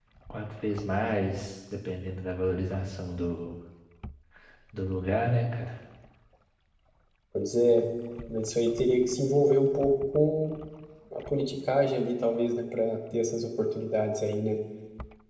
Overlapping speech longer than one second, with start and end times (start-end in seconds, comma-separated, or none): none